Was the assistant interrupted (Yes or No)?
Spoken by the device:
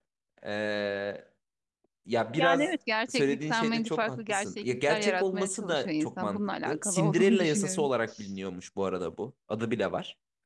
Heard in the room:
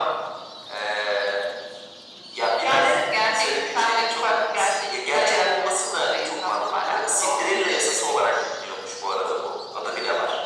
No